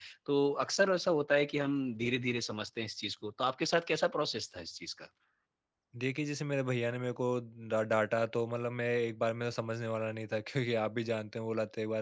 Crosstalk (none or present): none